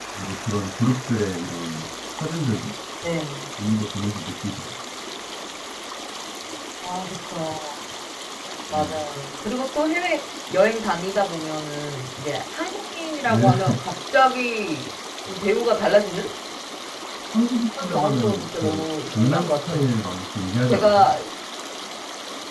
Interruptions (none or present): present